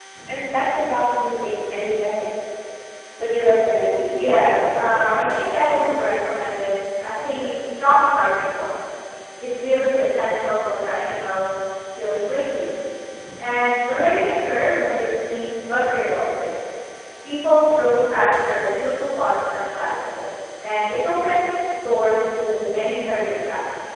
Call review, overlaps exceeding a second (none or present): present